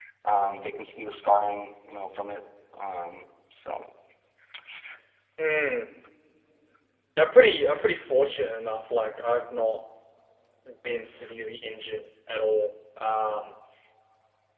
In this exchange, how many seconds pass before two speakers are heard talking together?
none

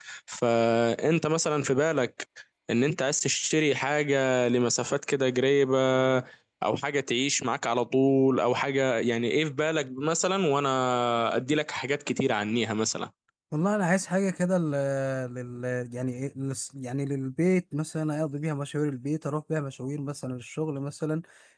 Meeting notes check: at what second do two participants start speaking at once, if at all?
none

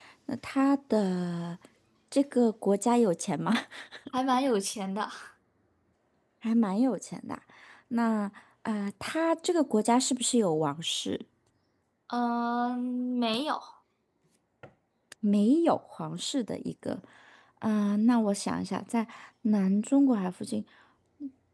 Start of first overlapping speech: none

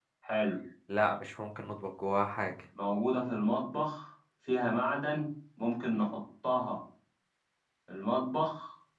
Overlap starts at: none

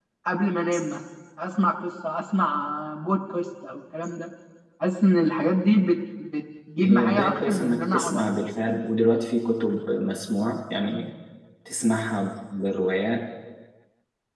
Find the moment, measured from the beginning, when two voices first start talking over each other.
6.8 s

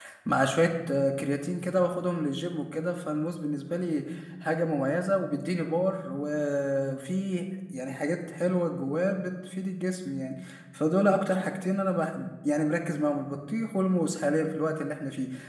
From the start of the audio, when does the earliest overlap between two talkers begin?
none

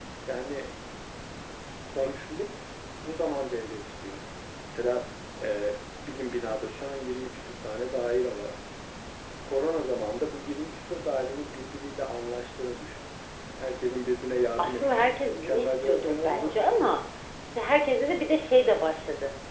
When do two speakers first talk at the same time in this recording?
14.6 s

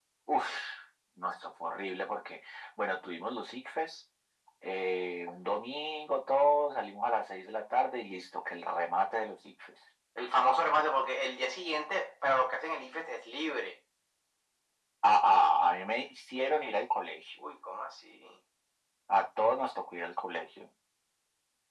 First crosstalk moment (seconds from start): none

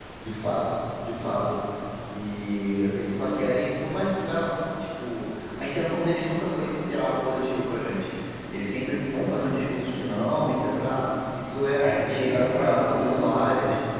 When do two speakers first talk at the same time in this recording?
11.8 s

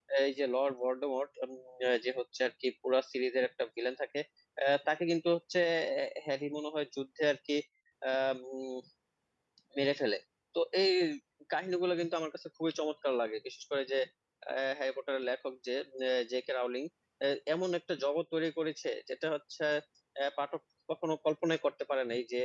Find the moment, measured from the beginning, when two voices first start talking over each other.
none

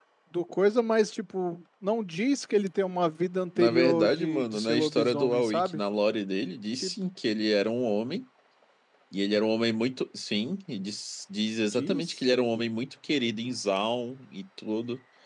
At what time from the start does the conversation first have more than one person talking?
3.6 s

